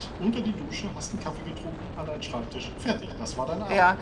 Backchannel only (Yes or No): No